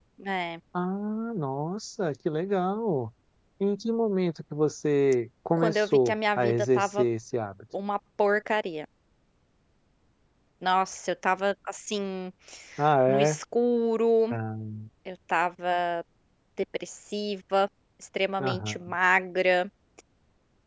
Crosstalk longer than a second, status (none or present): present